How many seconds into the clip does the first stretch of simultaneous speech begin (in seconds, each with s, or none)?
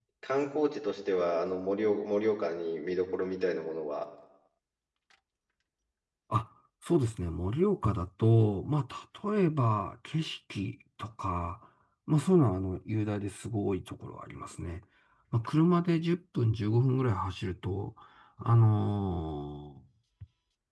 none